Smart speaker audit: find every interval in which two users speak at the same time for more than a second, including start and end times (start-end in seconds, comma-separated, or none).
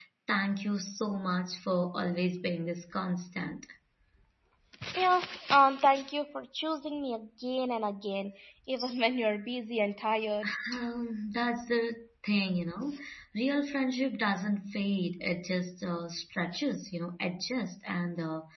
none